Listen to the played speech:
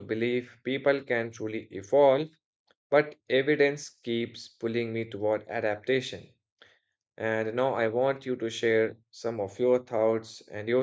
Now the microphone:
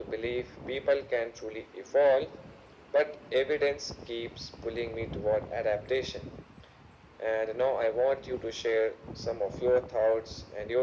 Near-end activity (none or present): none